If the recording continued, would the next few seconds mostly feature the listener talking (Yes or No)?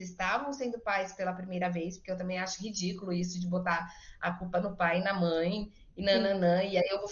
No